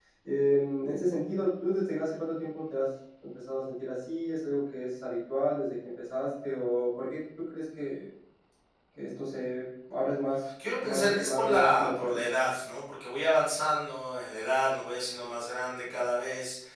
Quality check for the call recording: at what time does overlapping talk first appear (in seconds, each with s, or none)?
10.6 s